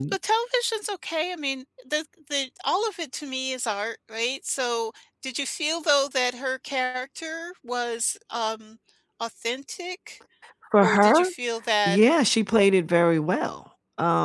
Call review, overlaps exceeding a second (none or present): none